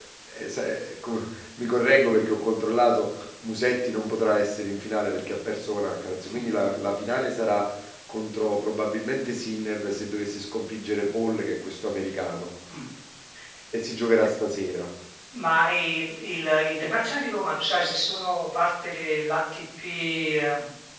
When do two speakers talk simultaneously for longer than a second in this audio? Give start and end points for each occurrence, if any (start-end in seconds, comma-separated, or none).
none